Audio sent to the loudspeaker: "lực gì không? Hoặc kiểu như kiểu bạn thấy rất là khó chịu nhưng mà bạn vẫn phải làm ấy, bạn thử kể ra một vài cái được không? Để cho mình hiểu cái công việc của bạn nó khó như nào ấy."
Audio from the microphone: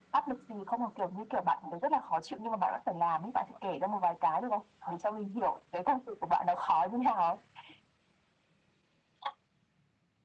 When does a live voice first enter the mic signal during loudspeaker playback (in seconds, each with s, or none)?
none